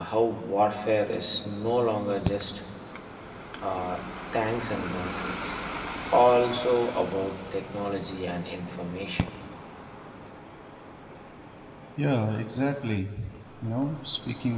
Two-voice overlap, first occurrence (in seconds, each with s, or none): none